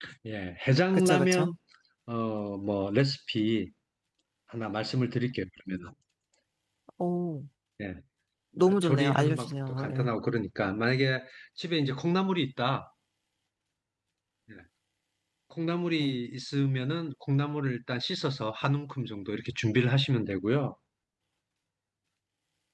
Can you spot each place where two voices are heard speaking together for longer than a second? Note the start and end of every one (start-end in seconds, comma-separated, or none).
8.6-10.1